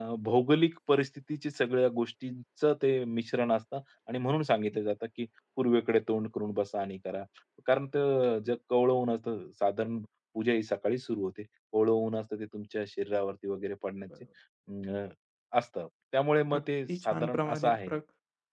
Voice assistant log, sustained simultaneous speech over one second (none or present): present